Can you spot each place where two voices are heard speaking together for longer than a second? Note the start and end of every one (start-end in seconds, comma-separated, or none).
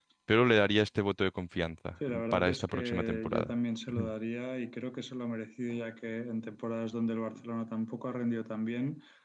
2.1-3.5